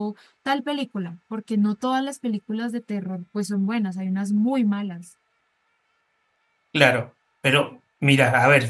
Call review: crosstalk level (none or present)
none